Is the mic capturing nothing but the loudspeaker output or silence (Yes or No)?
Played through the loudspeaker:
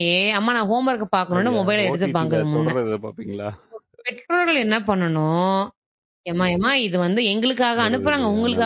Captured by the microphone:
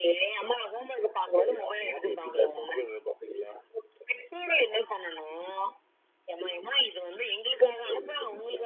Yes